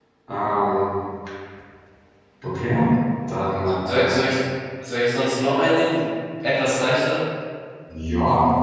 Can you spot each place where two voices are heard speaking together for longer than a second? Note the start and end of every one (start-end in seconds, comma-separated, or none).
none